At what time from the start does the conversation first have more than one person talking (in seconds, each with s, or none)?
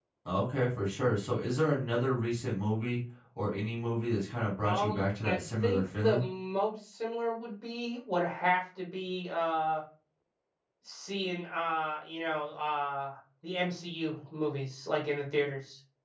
4.6 s